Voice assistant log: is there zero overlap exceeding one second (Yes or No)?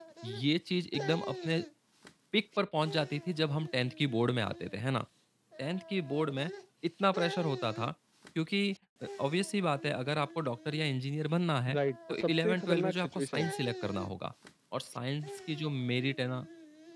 No